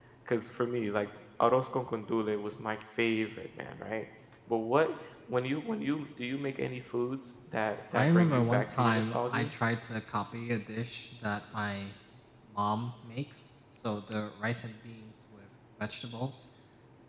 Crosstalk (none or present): present